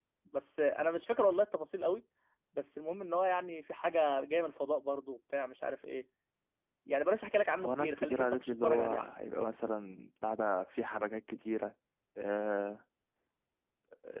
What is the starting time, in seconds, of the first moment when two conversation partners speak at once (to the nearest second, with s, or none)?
8 s